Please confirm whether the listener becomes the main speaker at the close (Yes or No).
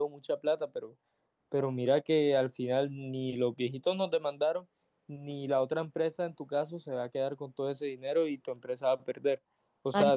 Yes